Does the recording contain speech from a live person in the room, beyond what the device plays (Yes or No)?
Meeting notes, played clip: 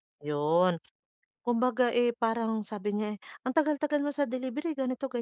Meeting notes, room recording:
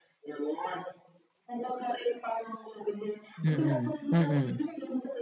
Yes